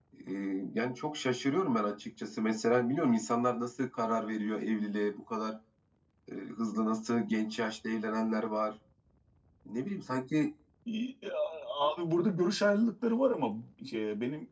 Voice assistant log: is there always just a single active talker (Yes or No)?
Yes